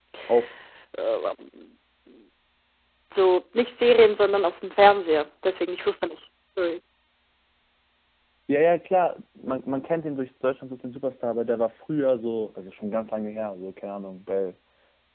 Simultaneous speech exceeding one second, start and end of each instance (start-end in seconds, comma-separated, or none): none